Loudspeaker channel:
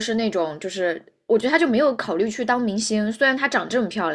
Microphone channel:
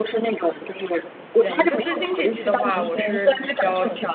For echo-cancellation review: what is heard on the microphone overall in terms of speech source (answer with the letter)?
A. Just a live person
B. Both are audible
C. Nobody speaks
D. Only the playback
B